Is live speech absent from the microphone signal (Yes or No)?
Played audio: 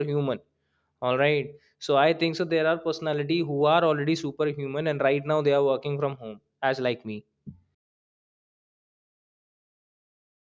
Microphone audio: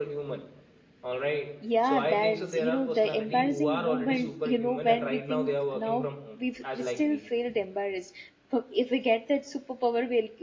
No